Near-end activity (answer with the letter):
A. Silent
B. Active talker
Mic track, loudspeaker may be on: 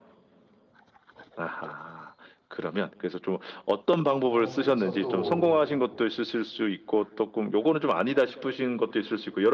B